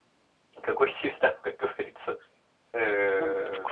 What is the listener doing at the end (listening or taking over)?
taking over